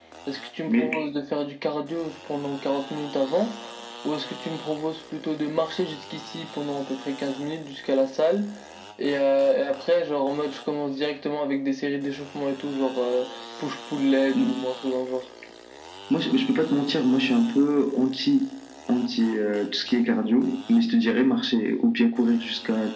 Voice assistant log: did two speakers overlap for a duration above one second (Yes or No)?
No